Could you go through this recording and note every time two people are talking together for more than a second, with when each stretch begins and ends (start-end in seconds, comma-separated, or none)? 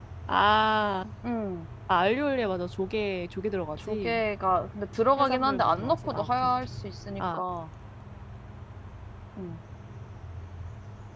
5.2-6.5